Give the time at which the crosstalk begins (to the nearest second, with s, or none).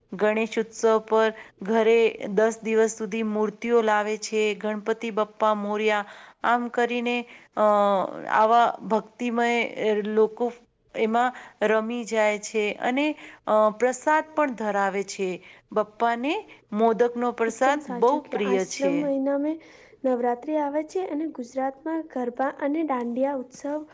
18 s